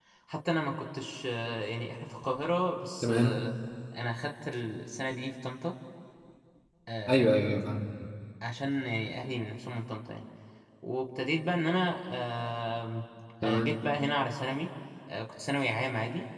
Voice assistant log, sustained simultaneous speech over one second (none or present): none